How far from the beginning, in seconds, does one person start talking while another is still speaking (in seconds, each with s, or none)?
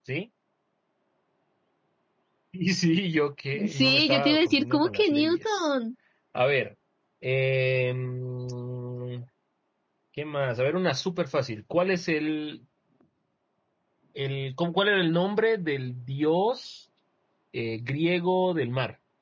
3.5 s